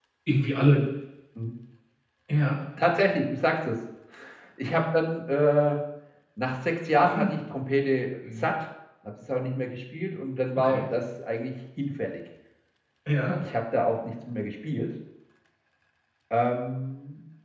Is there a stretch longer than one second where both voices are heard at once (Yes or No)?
No